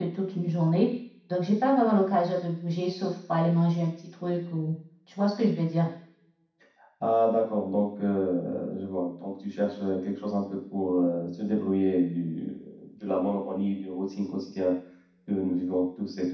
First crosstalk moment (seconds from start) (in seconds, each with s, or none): none